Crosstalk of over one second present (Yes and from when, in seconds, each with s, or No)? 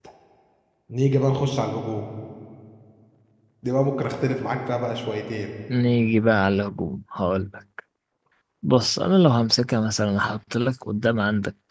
No